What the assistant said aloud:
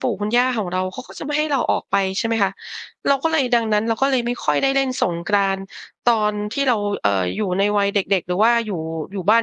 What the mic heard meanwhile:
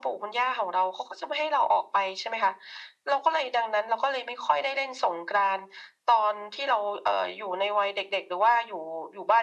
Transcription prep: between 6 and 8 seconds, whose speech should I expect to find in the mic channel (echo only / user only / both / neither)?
echo only